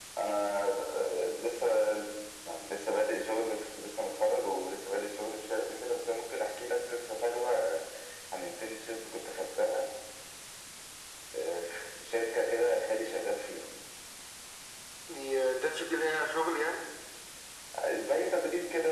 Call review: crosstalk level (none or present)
none